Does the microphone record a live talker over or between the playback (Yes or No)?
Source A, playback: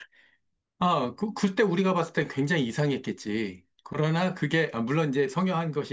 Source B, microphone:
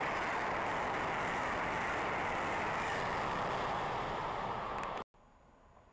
No